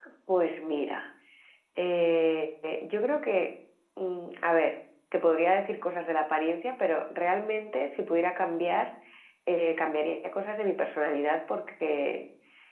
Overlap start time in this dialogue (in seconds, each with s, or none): none